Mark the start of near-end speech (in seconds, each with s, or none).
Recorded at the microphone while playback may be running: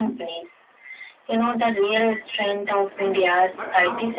3.0 s